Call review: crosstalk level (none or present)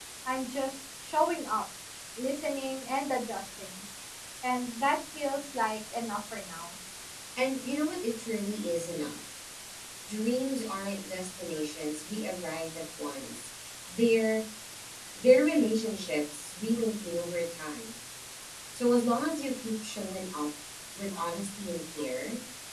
none